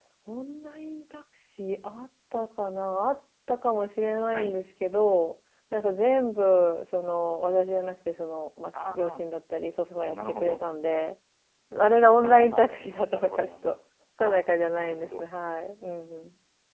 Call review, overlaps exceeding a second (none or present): present